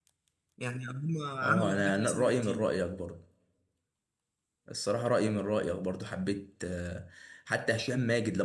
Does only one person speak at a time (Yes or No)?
No